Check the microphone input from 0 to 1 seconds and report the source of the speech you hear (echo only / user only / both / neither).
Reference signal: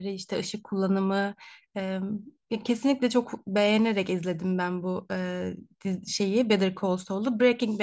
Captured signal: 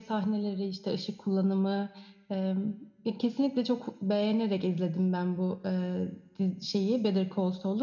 echo only